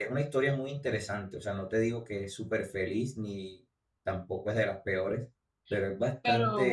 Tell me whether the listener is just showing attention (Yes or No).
Yes